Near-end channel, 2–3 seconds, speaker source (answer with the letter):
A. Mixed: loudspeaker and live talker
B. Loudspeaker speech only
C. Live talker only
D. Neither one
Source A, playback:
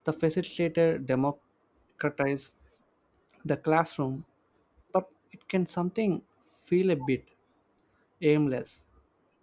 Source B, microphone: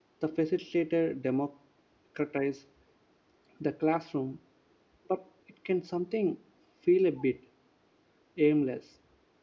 B